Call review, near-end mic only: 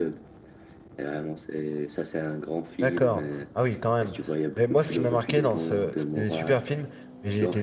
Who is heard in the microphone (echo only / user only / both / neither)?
both